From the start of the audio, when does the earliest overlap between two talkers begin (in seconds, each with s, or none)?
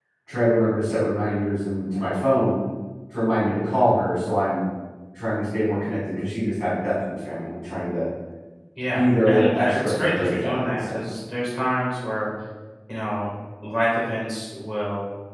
8.9 s